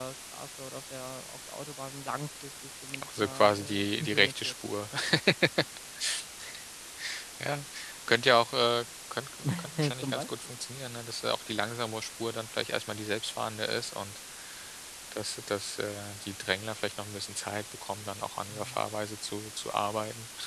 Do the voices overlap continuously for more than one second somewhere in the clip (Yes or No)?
Yes